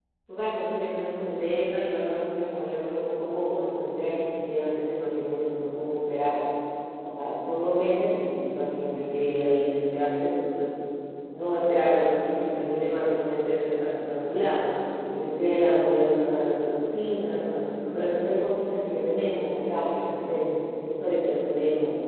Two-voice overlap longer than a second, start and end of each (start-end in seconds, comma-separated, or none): none